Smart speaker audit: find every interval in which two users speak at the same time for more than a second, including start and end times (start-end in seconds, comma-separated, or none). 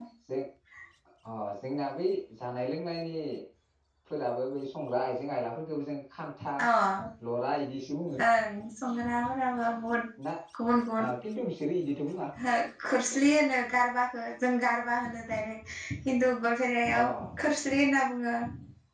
none